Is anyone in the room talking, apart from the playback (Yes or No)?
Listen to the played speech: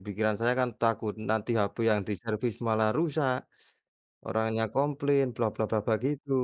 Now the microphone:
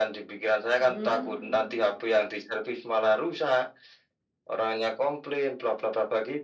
Yes